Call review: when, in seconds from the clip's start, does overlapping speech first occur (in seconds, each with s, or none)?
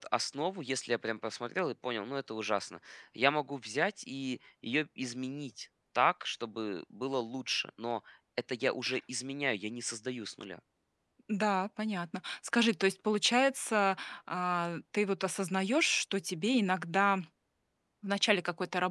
none